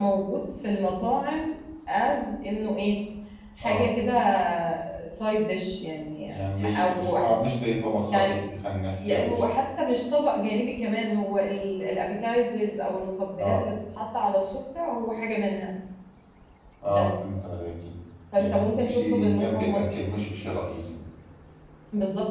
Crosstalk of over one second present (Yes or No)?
Yes